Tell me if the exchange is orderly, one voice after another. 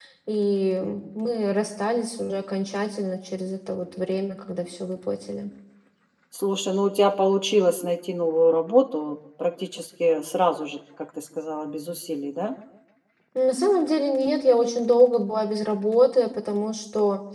Yes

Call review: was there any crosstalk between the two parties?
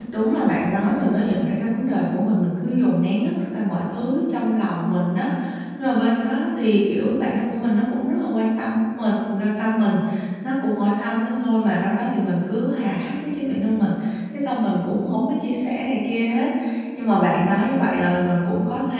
No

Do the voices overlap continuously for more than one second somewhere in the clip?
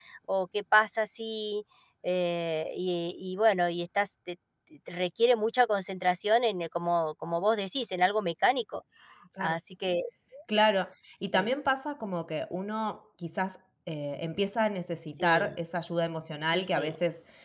No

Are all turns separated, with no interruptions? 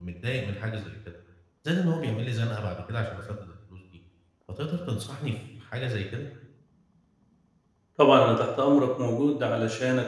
Yes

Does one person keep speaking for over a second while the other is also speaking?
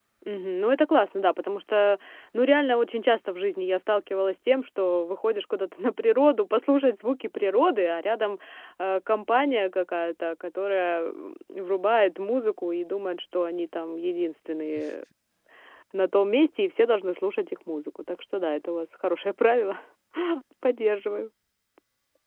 No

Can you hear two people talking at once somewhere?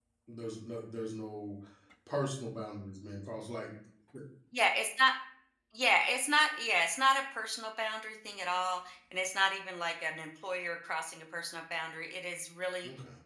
No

